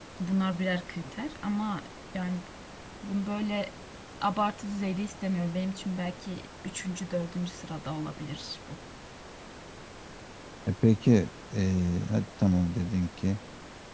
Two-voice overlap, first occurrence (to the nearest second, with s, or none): none